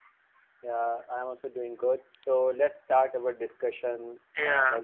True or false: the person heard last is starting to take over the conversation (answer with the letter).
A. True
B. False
B